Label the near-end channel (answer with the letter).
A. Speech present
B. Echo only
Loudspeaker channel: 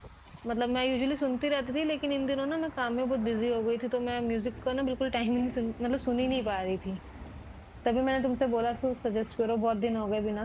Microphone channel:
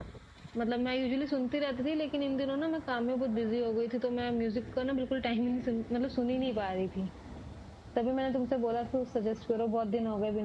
B